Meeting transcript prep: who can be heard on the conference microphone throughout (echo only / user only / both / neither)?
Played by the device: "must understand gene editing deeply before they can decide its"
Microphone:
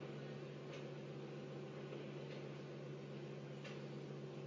neither